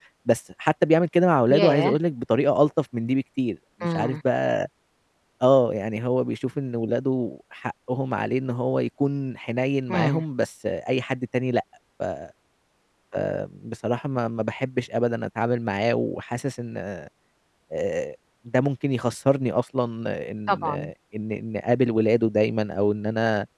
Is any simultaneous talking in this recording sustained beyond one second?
No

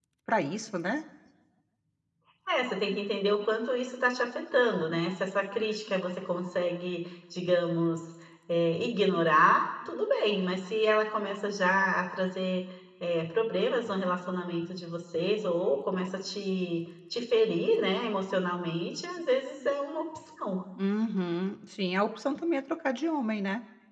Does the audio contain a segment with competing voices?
No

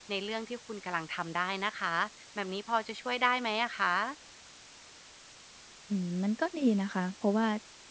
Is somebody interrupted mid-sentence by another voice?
No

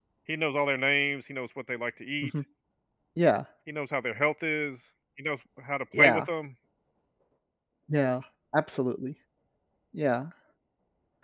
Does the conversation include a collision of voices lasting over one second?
No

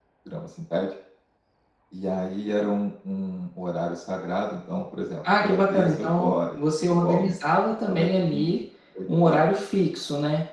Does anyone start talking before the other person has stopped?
Yes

